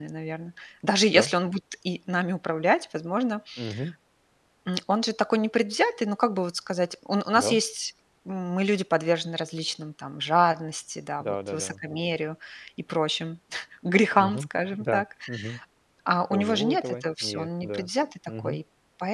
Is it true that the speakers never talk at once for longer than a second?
No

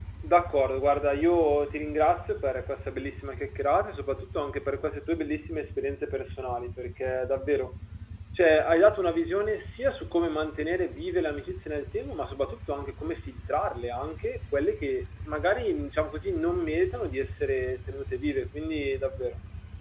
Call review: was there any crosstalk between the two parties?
No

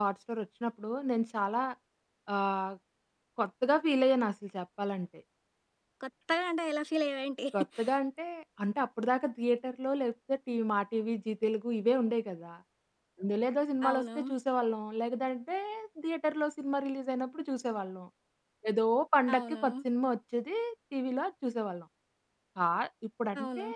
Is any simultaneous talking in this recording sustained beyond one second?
No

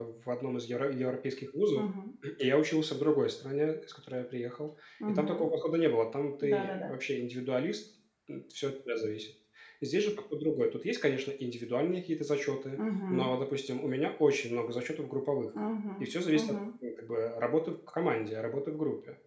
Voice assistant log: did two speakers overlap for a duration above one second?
No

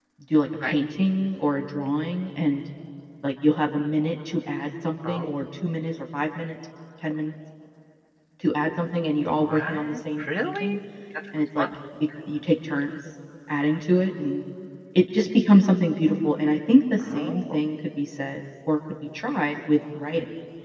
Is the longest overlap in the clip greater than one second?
Yes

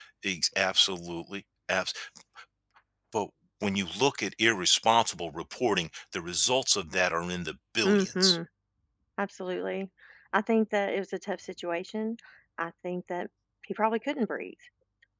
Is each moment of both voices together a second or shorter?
Yes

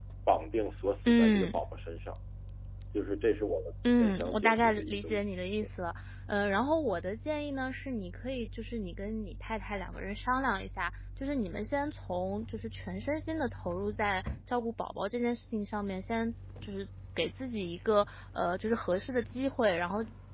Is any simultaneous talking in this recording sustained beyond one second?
Yes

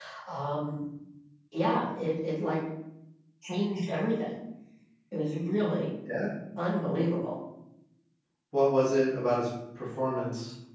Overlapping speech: No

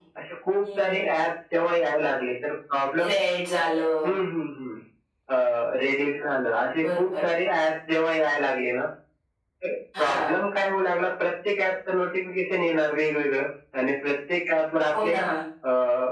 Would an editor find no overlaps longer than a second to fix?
Yes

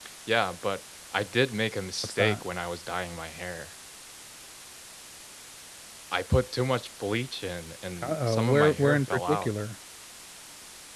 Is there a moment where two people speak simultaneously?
Yes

